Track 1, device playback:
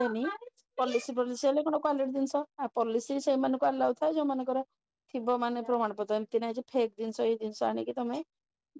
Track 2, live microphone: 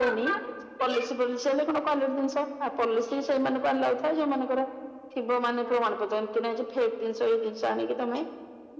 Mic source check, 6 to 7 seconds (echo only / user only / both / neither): echo only